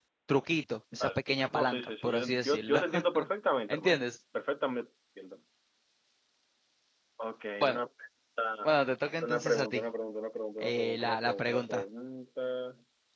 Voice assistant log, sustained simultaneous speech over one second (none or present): present